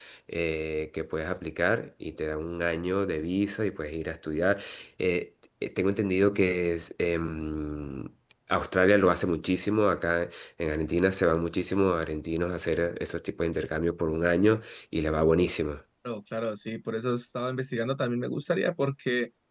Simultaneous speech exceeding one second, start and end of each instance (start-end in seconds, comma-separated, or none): none